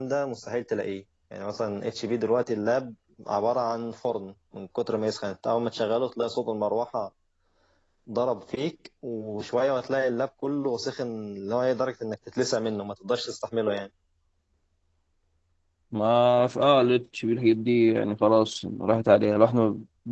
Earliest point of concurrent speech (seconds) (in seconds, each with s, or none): none